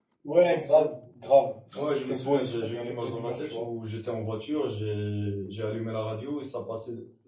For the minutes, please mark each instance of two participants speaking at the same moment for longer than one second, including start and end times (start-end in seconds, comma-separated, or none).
1.8-3.7